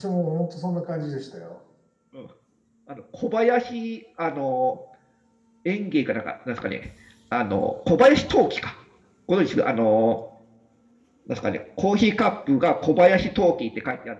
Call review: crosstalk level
none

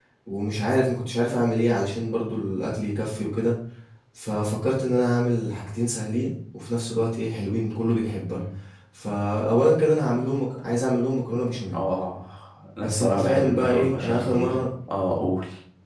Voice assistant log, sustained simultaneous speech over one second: present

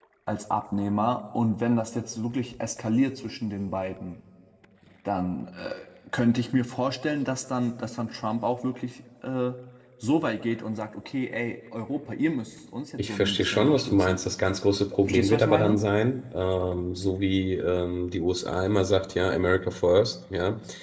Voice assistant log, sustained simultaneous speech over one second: present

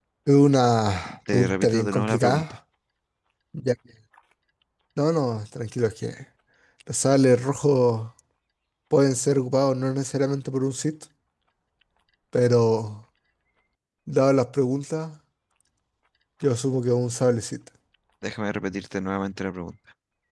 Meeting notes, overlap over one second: present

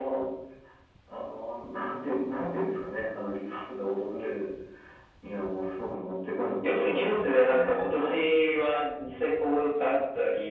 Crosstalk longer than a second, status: present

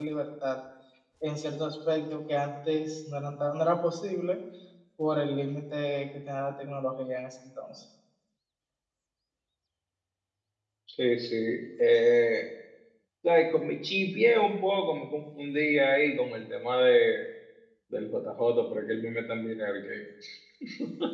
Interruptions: none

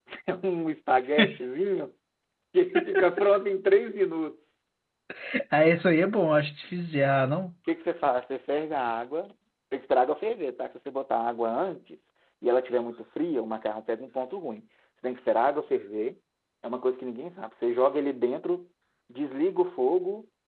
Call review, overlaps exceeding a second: none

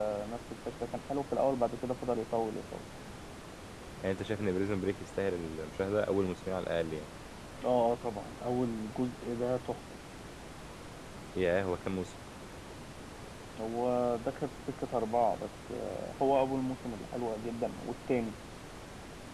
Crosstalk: none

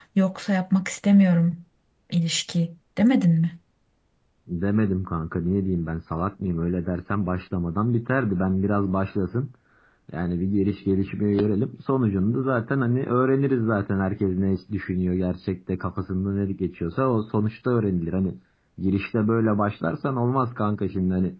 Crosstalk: none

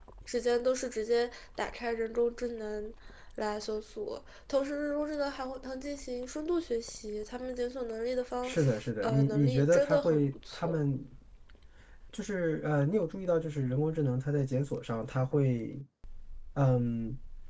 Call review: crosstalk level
present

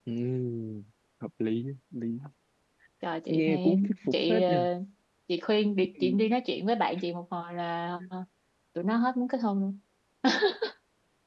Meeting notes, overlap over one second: present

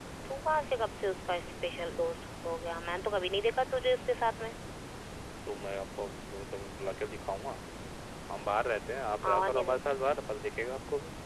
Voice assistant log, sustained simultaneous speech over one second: none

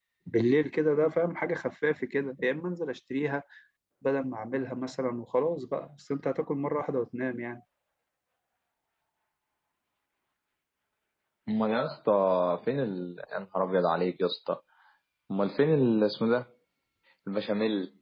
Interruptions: none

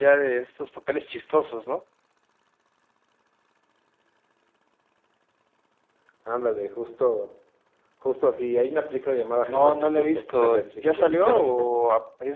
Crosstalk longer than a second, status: present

